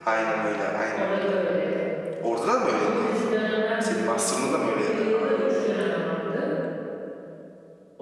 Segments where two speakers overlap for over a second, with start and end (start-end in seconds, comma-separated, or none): 3.8-5.4